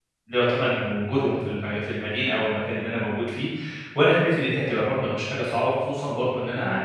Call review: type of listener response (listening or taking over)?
listening